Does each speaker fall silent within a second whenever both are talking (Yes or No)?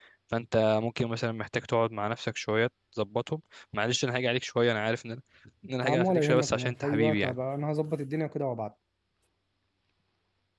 No